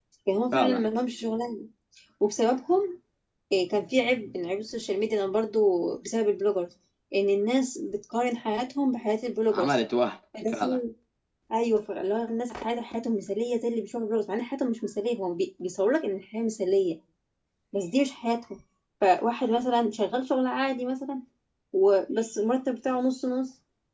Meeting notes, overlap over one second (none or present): none